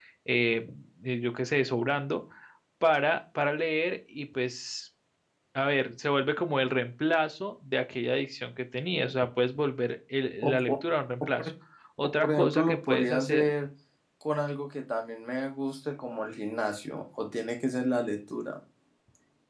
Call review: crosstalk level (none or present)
present